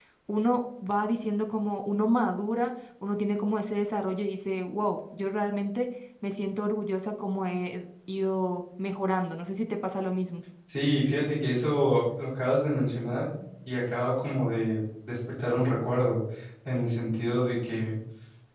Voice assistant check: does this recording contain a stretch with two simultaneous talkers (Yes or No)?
No